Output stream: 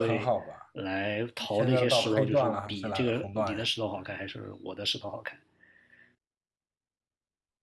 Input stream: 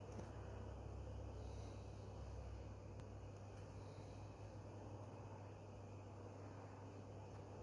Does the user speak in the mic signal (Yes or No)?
No